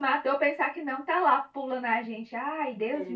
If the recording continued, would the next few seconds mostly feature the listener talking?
Yes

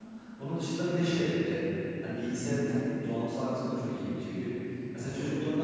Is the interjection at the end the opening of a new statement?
No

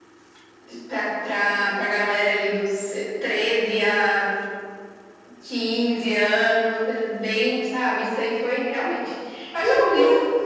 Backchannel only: Yes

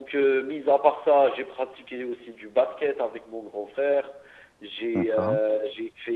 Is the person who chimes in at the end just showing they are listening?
Yes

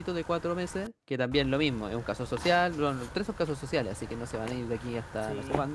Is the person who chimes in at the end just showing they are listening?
No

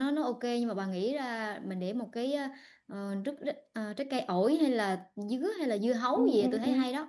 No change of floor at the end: No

